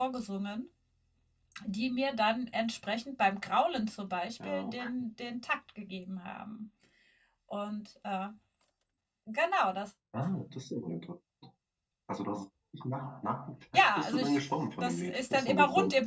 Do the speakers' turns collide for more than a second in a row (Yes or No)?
Yes